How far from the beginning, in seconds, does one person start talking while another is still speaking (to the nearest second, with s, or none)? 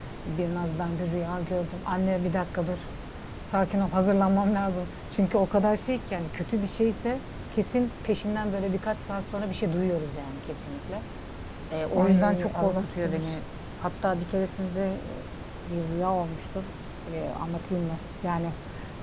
12 s